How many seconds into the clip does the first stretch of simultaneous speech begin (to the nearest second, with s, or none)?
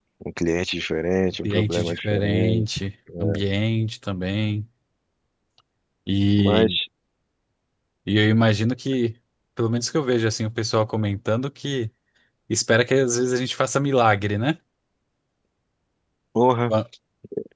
1 s